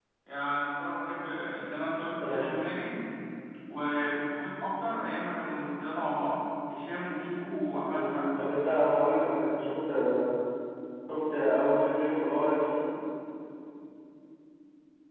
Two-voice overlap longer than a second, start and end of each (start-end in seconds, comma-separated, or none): none